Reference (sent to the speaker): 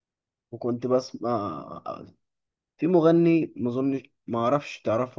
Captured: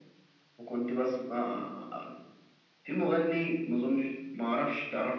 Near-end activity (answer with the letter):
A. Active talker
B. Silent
B